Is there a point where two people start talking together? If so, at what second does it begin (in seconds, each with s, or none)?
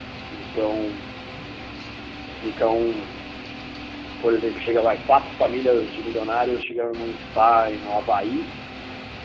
none